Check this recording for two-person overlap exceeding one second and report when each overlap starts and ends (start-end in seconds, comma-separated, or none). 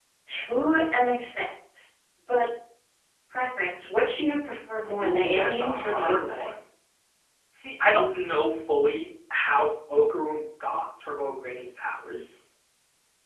5.0-6.5